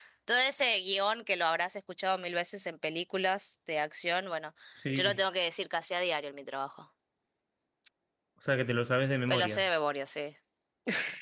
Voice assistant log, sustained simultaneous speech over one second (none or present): none